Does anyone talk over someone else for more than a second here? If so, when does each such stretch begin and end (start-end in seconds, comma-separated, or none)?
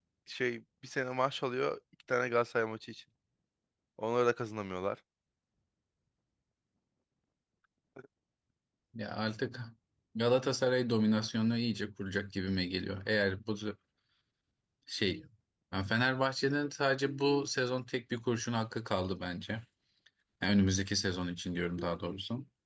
none